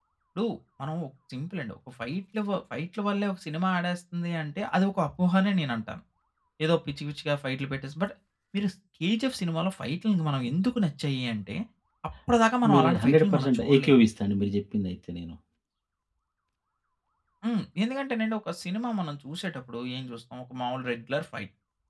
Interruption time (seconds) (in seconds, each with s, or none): 12.7 s